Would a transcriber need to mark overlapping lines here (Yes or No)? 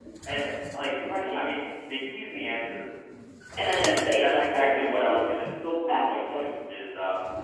Yes